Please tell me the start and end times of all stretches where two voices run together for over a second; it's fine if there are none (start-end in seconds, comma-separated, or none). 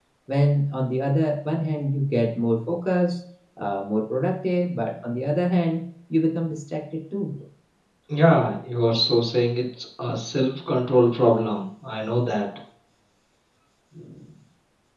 none